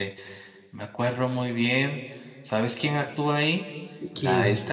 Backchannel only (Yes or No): Yes